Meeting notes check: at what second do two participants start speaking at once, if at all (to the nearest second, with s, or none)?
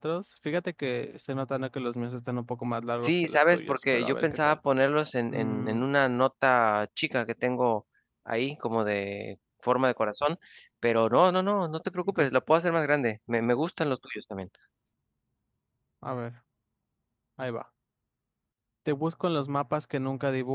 3 s